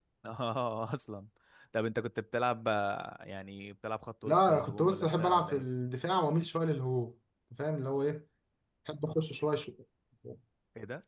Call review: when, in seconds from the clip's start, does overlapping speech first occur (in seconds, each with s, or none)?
4.2 s